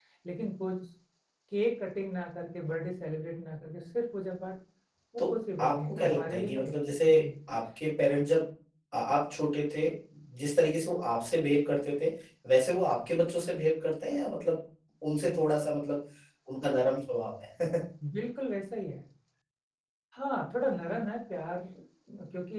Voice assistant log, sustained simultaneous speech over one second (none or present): present